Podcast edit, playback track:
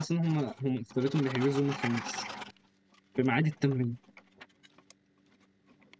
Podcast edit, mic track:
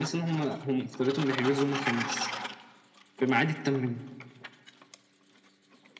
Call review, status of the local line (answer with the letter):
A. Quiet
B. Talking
A